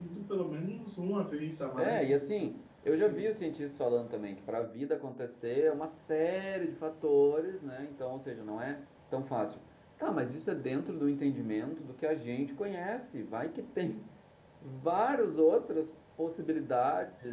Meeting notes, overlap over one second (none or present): none